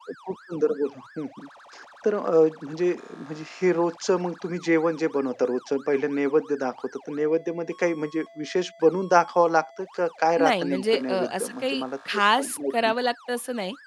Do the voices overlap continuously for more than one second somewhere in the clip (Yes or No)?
Yes